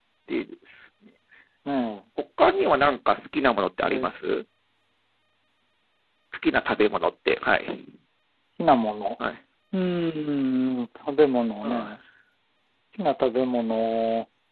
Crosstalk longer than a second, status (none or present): none